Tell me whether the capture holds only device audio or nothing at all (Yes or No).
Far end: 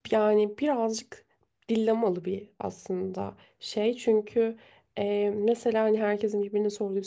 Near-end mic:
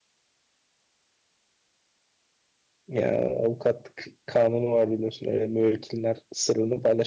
No